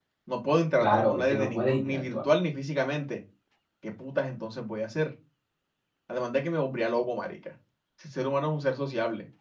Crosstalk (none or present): present